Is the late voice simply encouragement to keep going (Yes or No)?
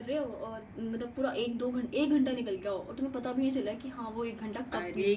No